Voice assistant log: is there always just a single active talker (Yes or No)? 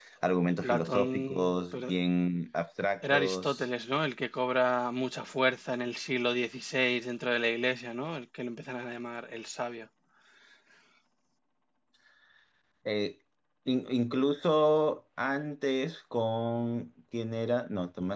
No